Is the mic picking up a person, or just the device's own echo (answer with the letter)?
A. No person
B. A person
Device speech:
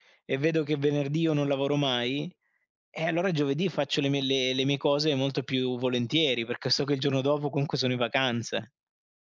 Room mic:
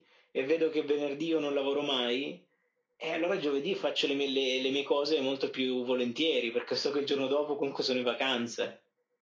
A